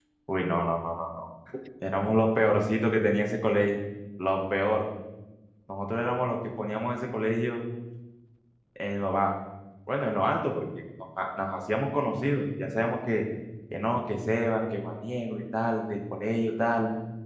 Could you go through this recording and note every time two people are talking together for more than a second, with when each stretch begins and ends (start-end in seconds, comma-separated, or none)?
none